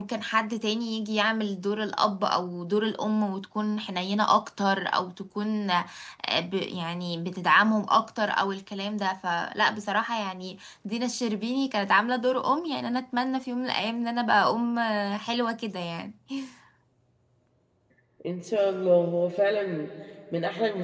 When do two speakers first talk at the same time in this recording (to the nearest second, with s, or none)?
none